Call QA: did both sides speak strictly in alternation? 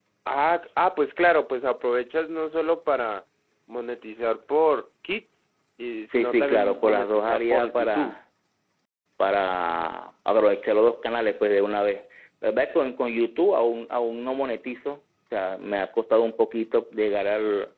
No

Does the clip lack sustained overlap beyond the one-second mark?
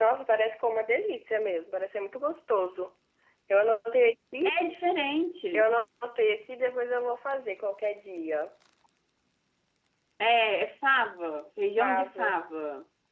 Yes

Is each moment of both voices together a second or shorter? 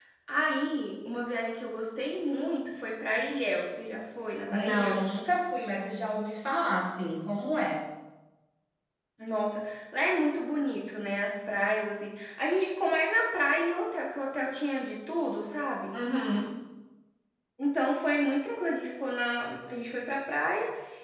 Yes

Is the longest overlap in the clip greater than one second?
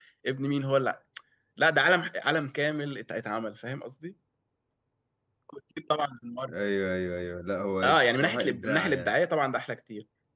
Yes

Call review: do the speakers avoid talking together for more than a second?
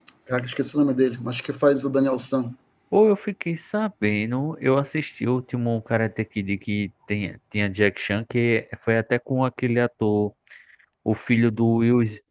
Yes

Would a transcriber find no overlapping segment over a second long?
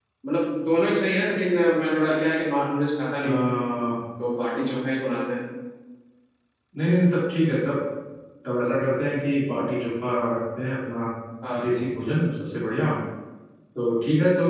Yes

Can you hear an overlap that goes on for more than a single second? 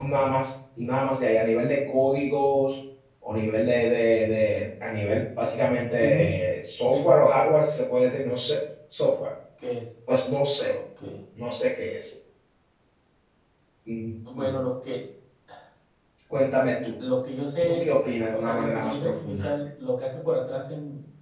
Yes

